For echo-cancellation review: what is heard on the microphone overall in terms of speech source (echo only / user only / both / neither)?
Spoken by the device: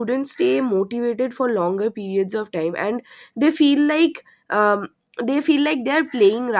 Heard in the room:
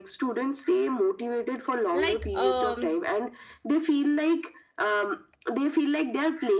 both